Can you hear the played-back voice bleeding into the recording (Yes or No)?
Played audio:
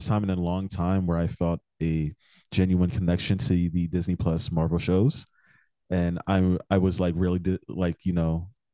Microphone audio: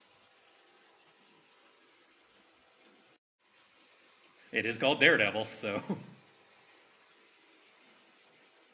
No